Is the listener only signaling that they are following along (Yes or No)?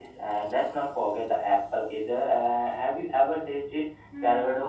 No